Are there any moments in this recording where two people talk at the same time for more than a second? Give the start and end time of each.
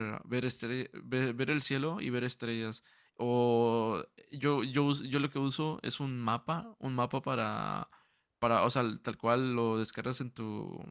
none

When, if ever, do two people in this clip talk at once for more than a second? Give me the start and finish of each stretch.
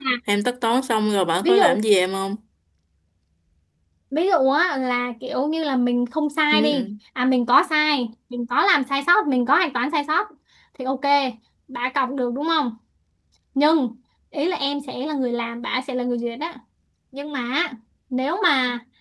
none

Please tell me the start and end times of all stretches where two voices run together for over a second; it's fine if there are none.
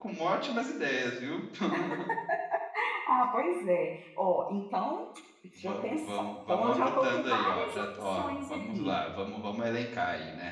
5.6-8.9

